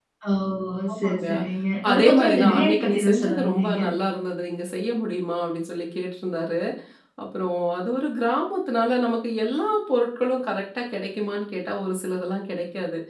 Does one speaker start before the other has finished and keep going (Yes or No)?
Yes